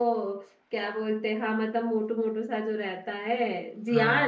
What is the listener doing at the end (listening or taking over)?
taking over